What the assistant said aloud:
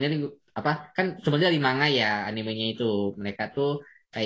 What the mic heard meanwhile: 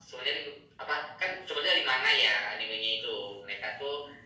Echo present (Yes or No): Yes